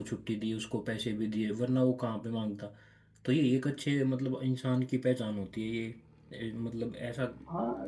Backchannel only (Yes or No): No